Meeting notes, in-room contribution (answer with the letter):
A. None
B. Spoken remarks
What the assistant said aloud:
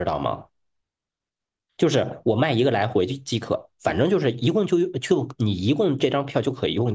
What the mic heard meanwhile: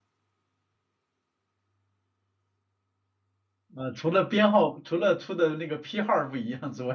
B